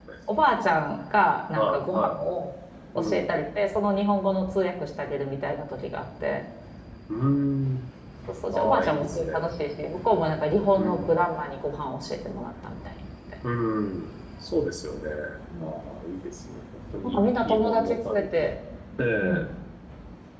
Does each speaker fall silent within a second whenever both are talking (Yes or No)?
No